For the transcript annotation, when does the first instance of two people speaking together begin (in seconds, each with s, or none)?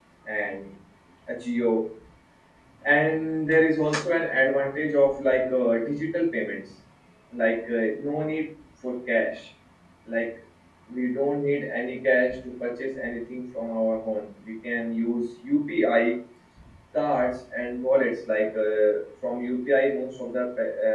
none